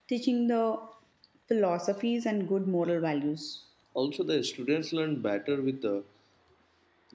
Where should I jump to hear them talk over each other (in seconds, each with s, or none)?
none